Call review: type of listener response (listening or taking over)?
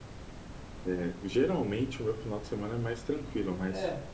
listening